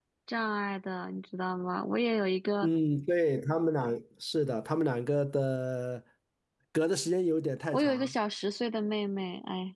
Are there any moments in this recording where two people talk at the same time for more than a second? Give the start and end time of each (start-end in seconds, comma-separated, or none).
none